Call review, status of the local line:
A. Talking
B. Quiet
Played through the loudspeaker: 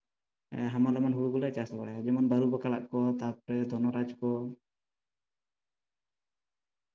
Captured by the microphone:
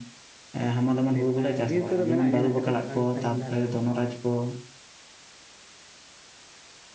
A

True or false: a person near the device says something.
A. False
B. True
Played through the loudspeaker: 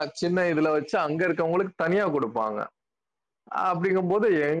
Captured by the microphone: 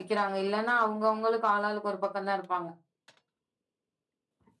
B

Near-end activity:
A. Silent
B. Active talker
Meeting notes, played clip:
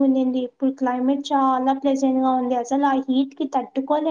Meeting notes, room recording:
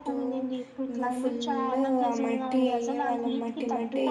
B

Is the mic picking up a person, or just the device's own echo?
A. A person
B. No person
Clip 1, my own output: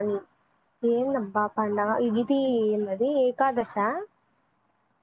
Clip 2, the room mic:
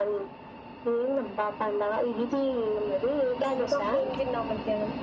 A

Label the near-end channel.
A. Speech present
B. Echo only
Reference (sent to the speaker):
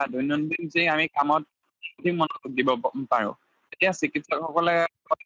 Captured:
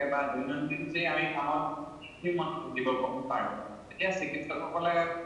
B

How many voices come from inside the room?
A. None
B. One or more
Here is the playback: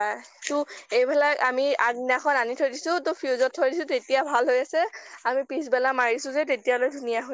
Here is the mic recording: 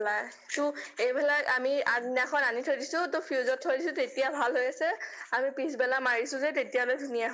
A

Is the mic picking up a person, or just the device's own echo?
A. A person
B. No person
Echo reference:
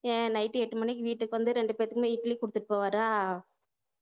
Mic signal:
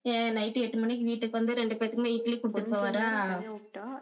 A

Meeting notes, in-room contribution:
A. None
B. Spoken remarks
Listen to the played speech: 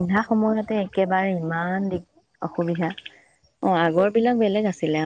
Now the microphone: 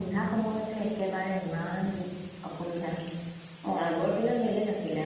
A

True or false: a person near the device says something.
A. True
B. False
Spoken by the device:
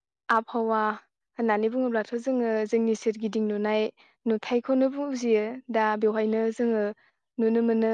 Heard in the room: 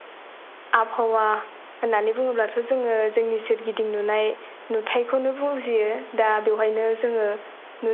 B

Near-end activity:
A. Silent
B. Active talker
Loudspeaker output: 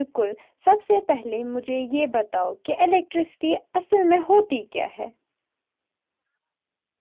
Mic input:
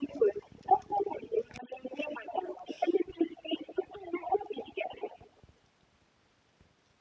A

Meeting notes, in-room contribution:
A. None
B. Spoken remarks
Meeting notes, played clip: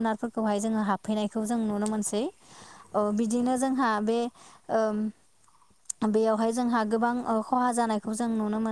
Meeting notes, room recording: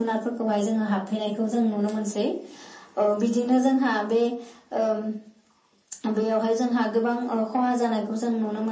A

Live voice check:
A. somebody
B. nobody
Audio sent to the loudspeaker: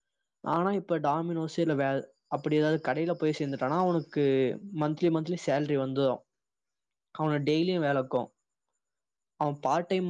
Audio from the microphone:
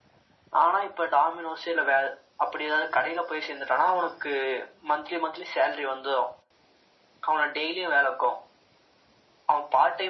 B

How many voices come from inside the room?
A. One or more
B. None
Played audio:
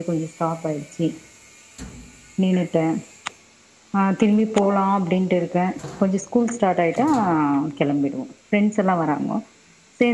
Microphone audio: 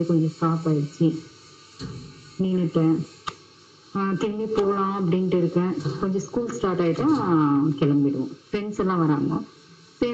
B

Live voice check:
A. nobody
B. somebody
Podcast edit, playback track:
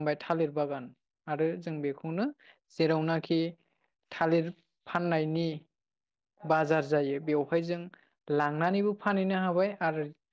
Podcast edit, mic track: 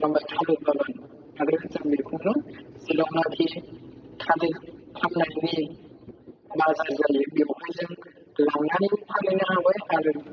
A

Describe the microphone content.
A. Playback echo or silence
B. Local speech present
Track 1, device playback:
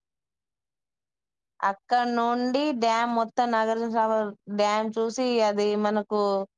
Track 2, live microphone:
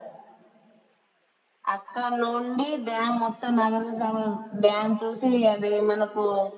A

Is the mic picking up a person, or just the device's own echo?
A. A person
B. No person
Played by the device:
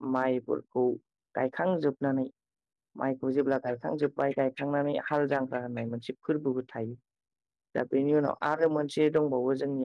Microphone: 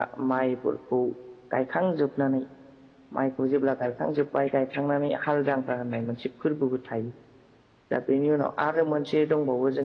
B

